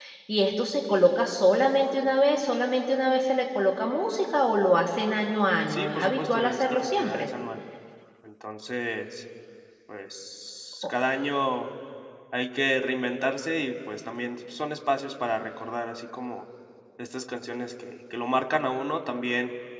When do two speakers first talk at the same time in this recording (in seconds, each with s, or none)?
5.7 s